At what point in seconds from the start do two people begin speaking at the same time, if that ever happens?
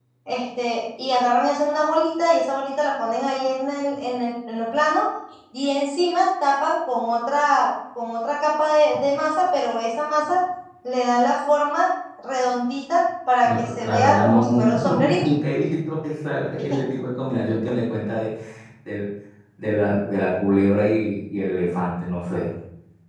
13.4 s

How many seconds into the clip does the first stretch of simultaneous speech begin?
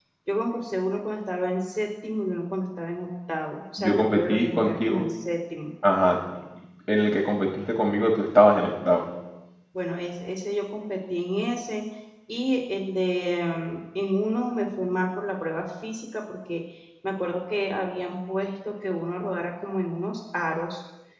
3.8 s

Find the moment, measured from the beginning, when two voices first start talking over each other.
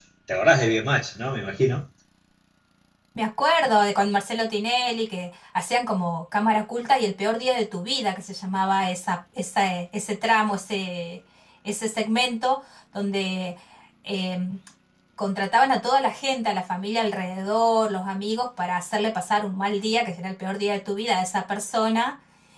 none

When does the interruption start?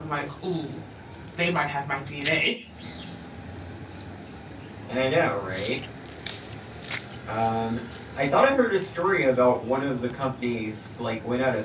none

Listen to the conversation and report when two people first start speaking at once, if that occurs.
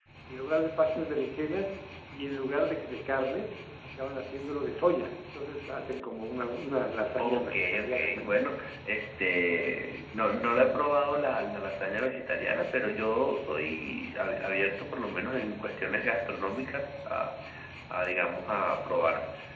7.2 s

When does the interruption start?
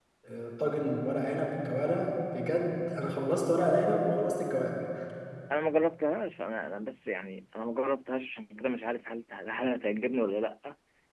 none

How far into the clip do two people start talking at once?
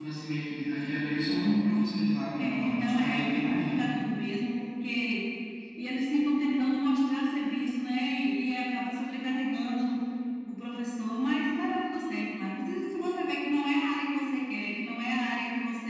2.4 s

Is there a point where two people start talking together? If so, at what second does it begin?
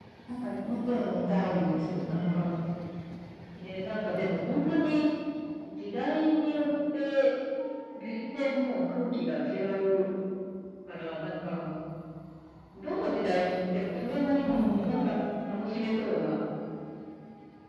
1.1 s

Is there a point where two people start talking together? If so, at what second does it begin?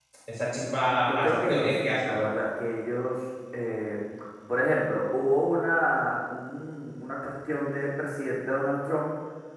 1.0 s

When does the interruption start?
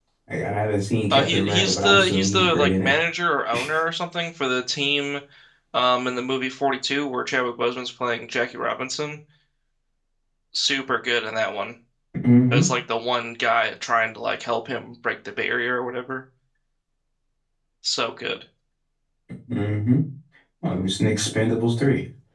1.1 s

